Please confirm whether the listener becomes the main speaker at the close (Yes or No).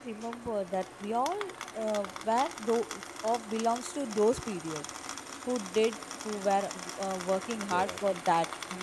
No